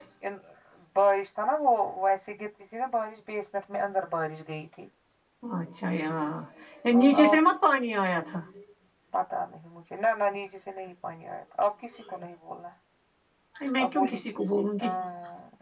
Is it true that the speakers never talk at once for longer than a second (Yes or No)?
Yes